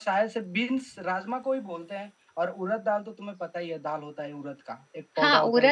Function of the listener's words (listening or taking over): taking over